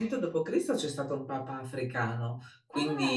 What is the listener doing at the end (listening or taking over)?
listening